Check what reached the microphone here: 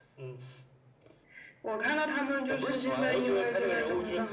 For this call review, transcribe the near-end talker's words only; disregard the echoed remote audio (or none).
none